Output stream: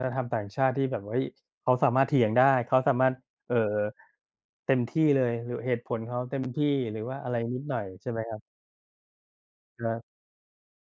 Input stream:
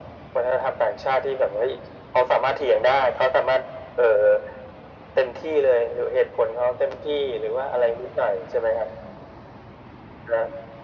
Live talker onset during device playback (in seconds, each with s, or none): none